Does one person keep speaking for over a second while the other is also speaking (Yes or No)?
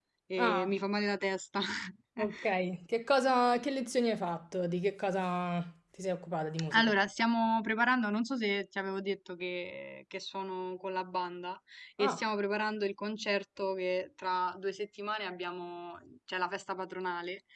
No